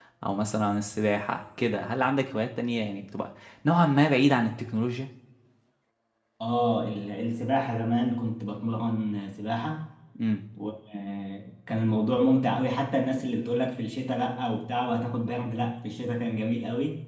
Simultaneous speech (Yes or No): No